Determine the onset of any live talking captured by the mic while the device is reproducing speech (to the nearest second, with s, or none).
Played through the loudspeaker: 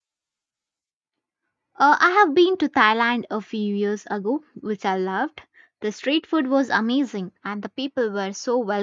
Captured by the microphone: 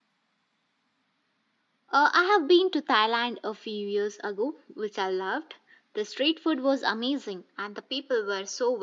none